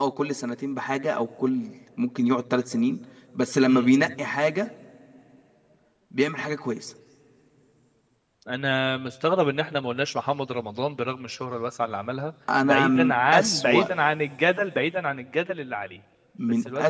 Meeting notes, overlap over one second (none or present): present